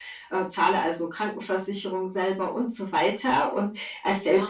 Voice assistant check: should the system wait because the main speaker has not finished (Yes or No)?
Yes